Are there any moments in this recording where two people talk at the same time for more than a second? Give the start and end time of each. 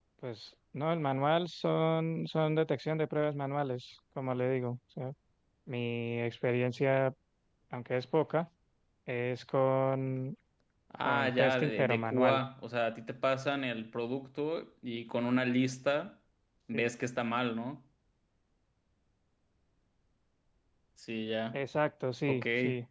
11.1-12.4

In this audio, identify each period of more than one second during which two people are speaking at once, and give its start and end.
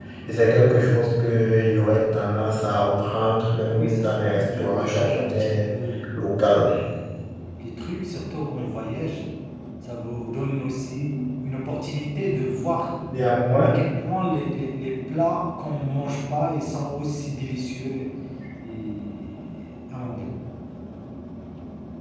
3.7-5.7

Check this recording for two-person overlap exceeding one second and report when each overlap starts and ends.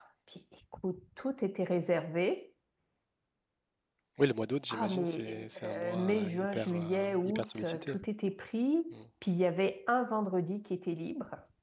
4.7-8.0

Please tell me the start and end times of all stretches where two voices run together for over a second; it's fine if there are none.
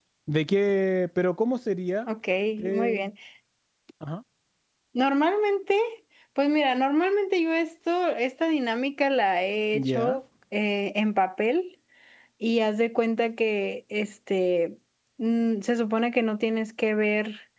none

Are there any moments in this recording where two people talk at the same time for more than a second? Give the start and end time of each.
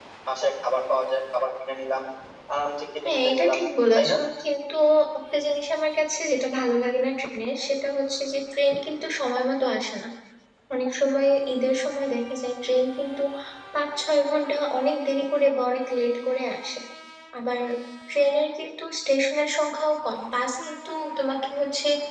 none

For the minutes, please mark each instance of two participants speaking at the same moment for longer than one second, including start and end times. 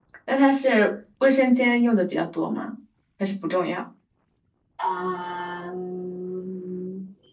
none

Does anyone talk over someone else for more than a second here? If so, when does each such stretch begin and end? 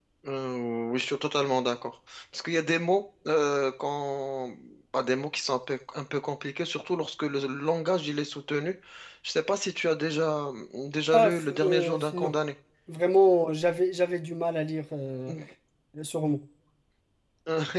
11.1-12.3

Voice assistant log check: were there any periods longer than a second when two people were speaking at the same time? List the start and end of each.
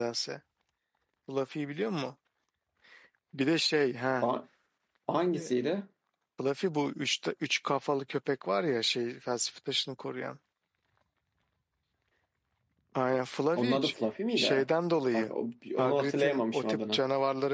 15.8-17.0

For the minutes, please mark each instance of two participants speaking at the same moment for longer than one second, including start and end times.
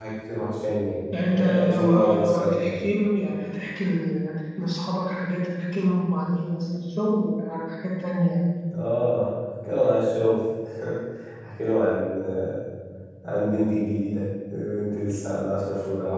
1.3-2.9

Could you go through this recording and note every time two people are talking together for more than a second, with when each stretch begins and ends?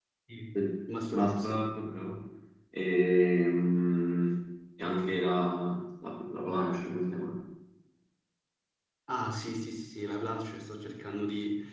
none

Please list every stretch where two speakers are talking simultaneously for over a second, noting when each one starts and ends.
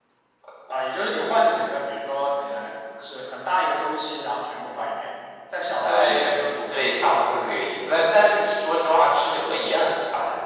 5.8-7.2

